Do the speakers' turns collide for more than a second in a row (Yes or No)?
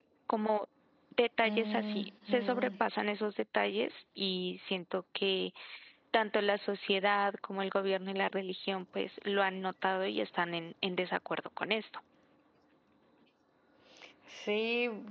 Yes